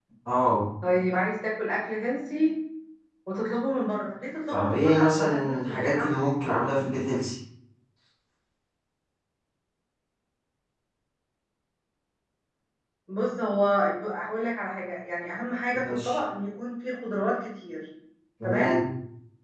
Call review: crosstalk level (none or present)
present